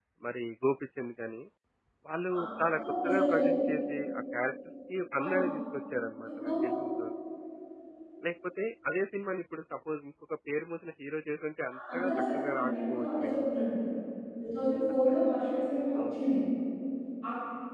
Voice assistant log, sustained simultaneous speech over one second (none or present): present